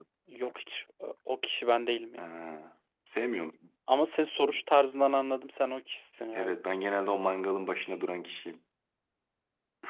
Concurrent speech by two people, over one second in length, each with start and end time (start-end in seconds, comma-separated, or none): none